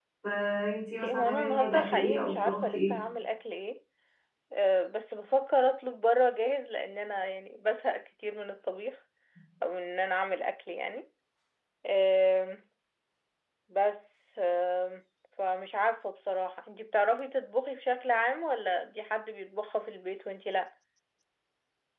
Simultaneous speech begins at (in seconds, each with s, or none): 1.0 s